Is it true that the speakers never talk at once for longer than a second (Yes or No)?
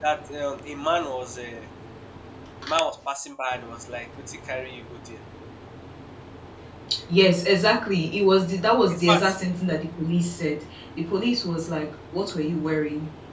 Yes